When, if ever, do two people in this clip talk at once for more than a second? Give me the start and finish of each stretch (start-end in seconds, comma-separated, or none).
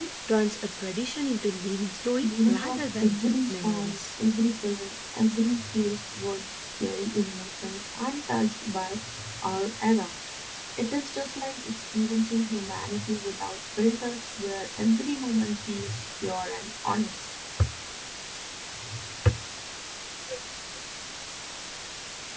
2.2-4.0